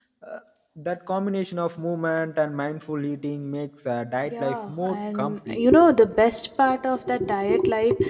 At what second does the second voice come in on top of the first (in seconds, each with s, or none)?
4.2 s